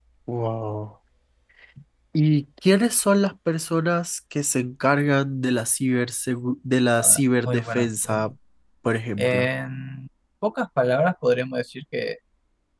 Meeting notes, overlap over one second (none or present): present